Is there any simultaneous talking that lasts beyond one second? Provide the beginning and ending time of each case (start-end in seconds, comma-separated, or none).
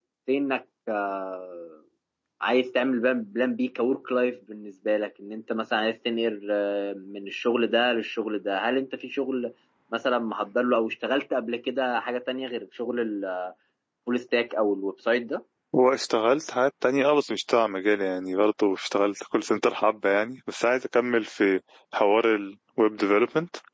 none